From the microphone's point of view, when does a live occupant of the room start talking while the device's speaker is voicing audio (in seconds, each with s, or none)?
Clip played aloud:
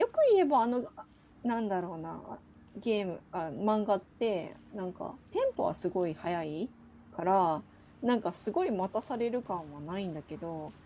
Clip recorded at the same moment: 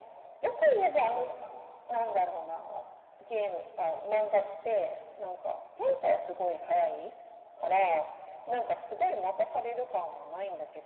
none